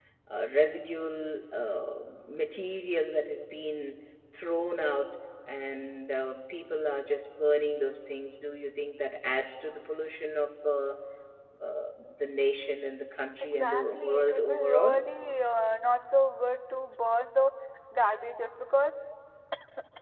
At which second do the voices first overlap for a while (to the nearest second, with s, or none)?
14 s